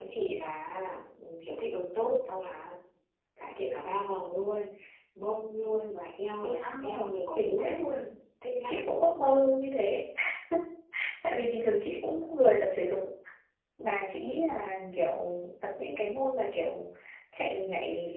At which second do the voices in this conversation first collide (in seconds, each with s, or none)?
6.4 s